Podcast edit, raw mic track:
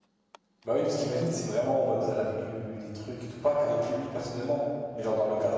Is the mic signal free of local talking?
No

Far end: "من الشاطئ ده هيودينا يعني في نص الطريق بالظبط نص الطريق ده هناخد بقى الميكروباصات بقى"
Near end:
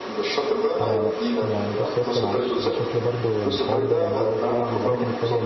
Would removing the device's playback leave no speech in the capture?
No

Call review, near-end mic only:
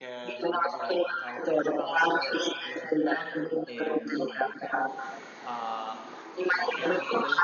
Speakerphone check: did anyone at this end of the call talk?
Yes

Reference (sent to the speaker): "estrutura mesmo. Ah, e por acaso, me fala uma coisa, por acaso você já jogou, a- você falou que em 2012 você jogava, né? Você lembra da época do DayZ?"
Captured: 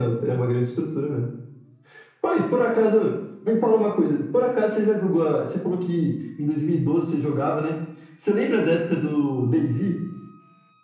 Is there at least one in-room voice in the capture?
No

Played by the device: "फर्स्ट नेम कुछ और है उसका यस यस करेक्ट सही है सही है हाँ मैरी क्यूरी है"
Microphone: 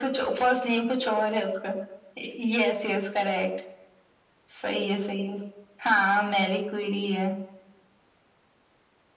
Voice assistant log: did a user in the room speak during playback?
No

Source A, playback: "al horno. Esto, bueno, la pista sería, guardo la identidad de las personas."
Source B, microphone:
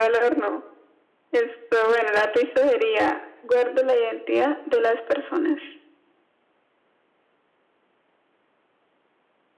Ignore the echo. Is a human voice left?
No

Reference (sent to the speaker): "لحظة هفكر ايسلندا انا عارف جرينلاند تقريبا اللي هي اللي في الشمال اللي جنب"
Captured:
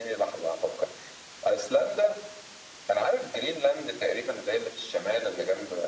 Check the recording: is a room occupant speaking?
No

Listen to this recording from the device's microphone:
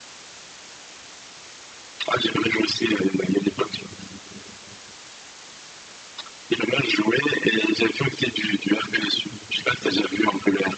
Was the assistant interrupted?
No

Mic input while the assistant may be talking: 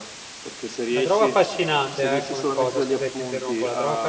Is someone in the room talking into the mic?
Yes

